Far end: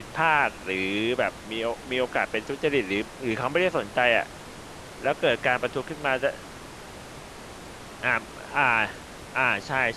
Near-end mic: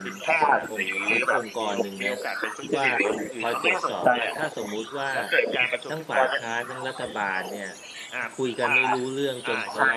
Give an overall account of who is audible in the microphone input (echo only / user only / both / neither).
both